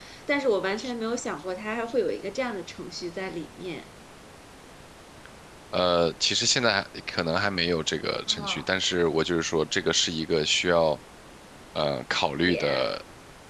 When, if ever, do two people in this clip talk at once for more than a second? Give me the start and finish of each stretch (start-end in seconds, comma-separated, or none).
none